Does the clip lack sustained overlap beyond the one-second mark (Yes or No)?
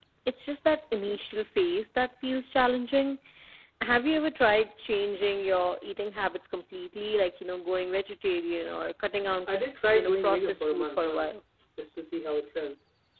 No